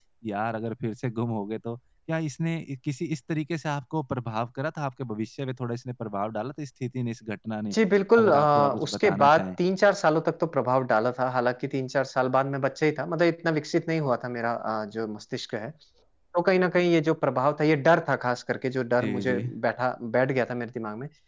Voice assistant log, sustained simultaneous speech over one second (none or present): present